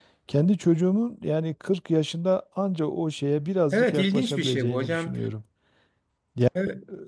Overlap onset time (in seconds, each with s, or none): 3.7 s